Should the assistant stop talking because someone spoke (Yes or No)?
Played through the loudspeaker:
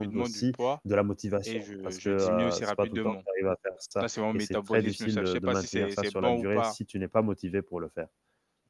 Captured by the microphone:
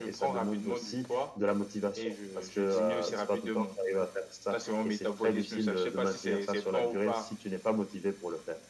No